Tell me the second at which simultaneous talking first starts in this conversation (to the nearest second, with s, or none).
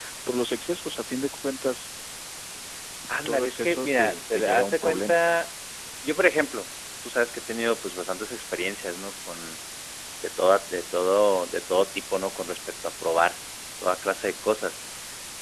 3 s